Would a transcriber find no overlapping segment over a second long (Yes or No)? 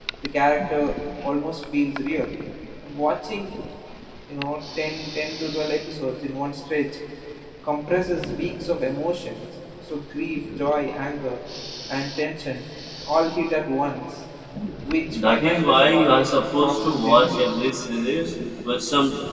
No